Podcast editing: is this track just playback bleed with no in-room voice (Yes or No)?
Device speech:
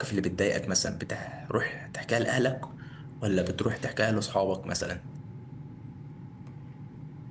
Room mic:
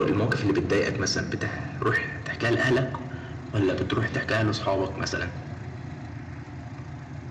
Yes